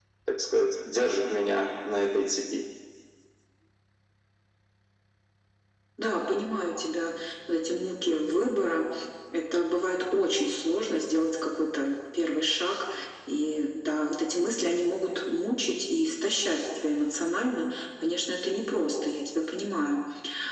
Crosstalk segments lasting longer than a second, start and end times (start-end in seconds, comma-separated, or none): none